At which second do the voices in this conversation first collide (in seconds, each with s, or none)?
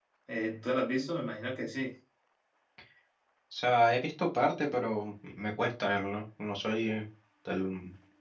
none